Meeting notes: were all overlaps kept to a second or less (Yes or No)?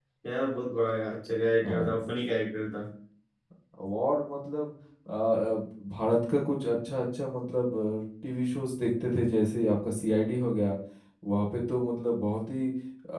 Yes